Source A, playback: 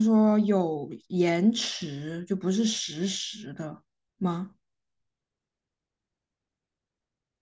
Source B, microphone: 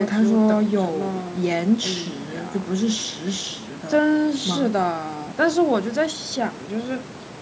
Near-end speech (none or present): present